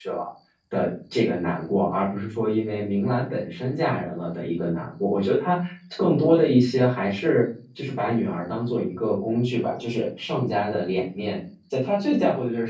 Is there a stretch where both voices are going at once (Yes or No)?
No